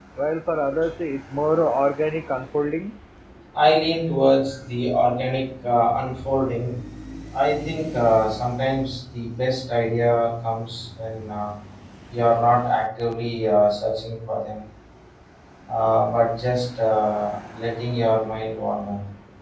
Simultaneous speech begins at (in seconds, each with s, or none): none